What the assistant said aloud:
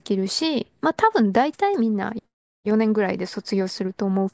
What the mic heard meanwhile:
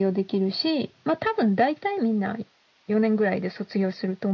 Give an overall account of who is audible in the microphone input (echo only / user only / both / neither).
echo only